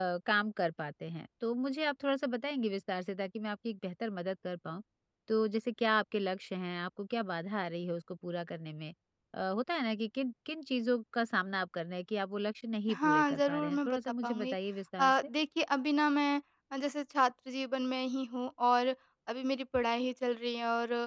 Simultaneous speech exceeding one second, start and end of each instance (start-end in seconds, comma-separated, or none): 12.9-14.6